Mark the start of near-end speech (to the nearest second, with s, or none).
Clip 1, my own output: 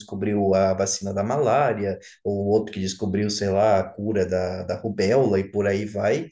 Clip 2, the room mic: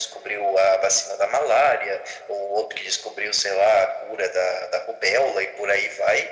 none